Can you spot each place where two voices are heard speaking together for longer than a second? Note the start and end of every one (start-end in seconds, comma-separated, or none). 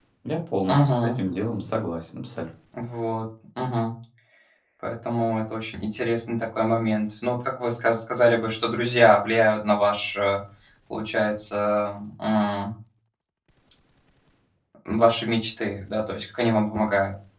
none